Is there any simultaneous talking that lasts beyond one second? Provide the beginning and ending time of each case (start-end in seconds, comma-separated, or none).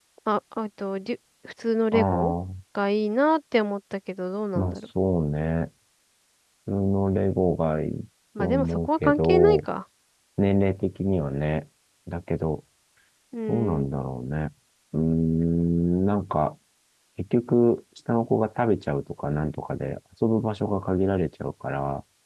8.4-9.6